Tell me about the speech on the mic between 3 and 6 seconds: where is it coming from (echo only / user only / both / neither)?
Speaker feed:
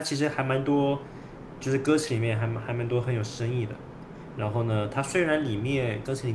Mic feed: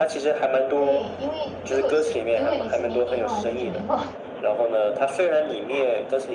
both